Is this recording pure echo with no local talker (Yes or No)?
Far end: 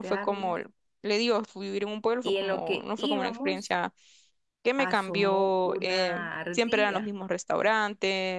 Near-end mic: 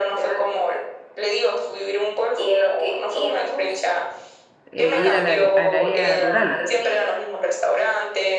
No